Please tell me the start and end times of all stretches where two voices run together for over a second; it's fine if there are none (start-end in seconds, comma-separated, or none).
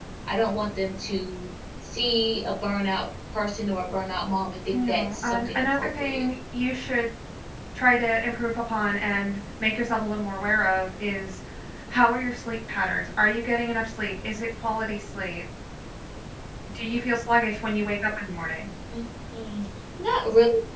4.7-6.3